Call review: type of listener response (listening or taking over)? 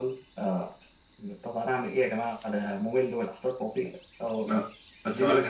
taking over